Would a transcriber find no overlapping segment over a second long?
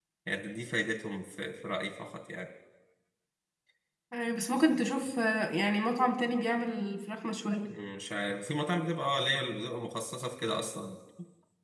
Yes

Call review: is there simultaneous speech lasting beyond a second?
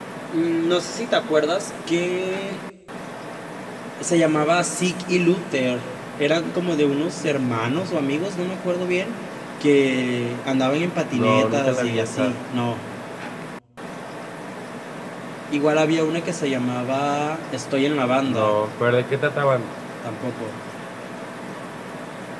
Yes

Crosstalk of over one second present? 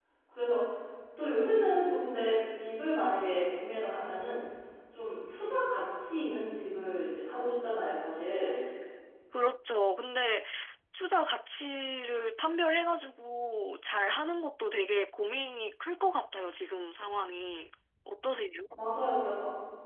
No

